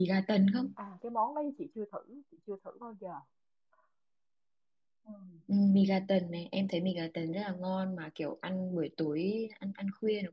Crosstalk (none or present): none